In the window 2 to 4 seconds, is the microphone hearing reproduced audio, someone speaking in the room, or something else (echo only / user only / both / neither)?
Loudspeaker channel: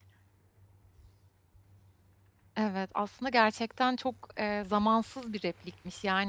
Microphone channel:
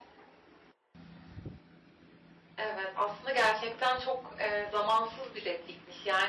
echo only